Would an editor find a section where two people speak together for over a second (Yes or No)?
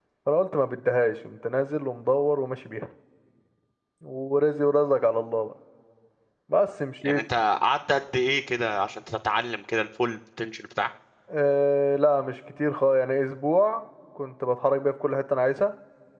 No